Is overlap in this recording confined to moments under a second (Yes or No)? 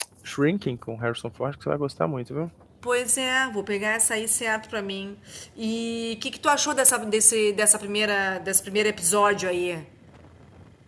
Yes